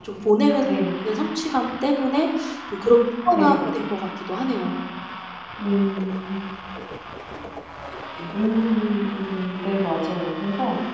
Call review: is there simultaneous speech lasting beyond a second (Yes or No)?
No